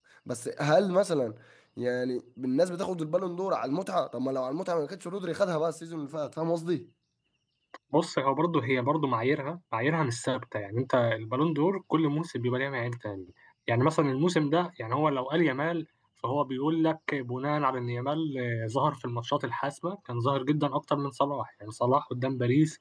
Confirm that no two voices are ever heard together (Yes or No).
Yes